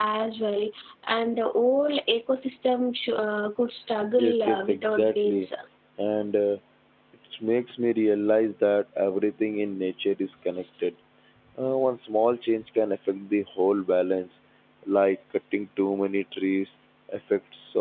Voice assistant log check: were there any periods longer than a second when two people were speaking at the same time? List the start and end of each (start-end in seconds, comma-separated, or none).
4.2-5.5